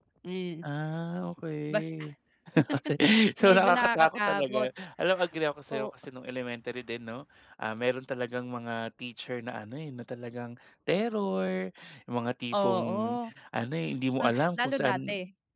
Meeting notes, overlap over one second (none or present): present